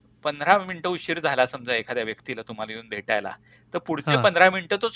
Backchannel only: Yes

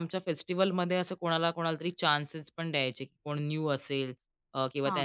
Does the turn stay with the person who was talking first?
Yes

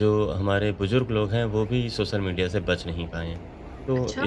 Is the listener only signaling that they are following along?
Yes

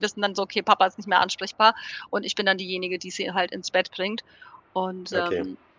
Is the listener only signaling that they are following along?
Yes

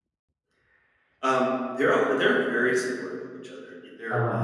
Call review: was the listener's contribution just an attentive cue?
Yes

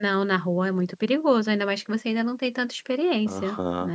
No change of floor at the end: No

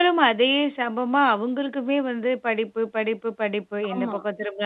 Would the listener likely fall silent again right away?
Yes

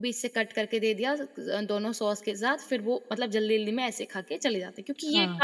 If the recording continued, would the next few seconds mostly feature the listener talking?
Yes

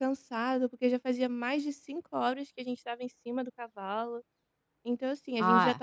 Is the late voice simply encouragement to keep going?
No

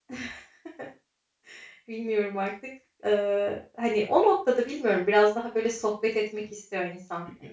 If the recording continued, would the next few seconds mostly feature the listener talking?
Yes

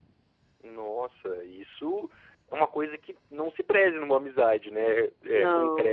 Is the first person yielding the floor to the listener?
No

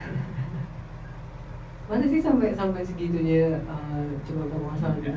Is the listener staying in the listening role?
No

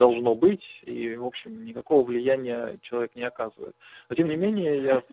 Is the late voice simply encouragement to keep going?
Yes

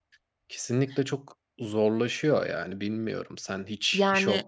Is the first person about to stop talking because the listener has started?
No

